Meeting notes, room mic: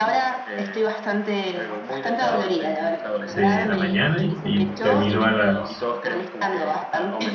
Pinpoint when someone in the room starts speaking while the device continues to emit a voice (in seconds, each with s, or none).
3.3 s